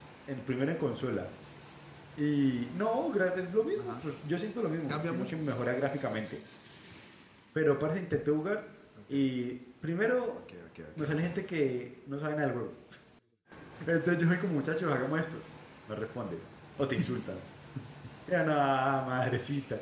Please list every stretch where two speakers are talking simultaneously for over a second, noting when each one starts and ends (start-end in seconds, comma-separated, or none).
none